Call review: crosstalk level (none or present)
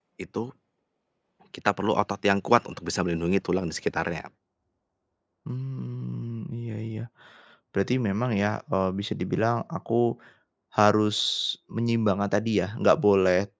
none